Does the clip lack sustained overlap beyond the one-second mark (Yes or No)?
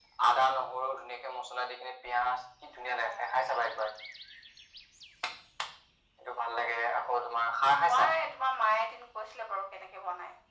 Yes